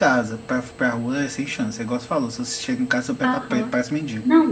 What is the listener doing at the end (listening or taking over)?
taking over